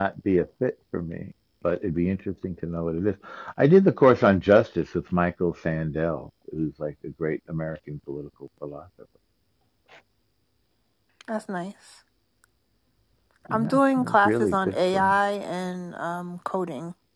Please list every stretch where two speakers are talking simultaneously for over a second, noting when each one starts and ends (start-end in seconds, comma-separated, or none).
13.5-15.1